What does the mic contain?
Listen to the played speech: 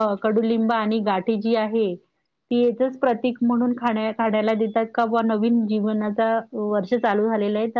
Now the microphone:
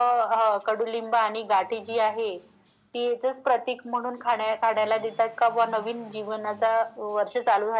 echo only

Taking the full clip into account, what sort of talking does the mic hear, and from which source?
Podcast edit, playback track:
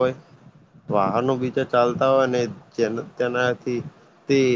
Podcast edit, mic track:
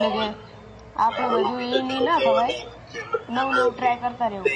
both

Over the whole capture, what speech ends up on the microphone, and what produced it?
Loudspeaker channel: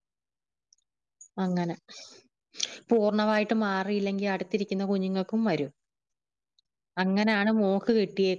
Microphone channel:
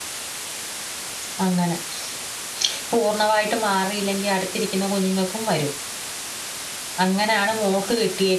echo only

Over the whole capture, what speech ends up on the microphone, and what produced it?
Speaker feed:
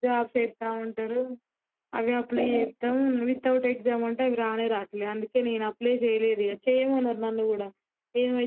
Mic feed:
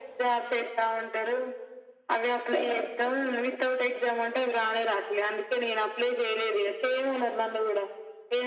echo only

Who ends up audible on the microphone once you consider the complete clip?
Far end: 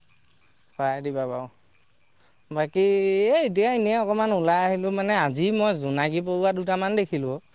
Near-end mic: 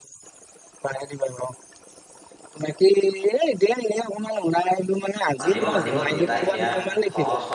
both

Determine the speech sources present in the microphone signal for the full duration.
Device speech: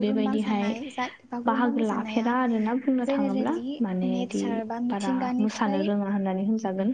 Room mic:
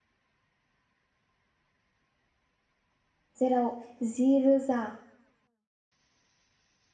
user only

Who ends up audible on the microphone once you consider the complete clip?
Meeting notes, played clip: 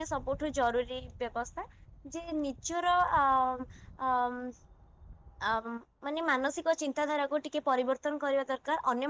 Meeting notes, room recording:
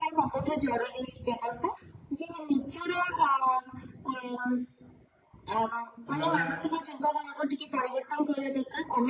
both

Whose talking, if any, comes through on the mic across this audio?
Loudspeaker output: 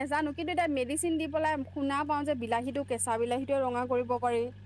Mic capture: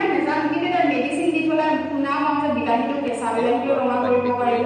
both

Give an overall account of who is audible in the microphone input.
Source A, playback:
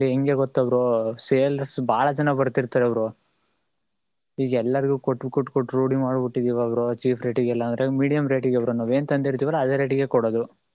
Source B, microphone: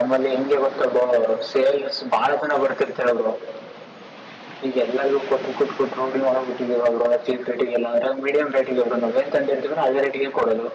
echo only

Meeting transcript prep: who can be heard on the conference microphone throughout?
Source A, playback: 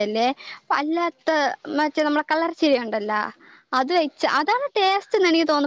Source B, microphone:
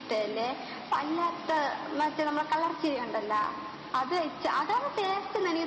echo only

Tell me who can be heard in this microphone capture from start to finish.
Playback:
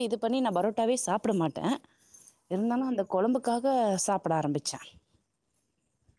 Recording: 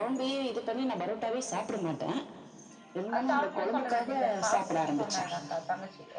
both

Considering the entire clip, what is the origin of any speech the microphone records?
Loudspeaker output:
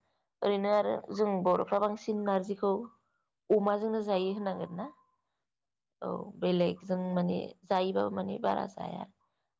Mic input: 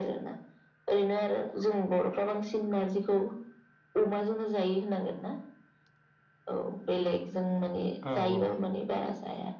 both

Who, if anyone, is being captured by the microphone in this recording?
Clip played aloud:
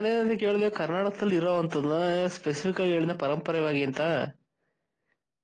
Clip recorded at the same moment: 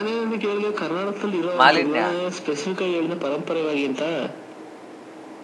both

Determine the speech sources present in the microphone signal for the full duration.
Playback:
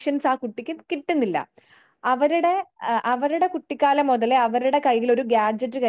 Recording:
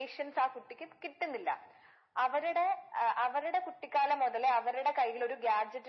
echo only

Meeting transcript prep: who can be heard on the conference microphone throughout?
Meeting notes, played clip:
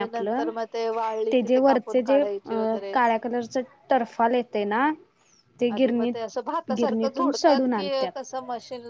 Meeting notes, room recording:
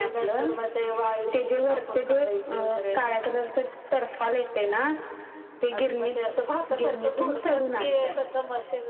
echo only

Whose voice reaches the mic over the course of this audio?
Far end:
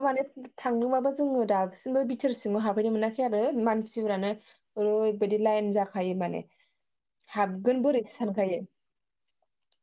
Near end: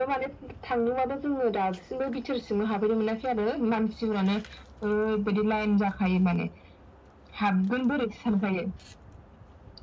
echo only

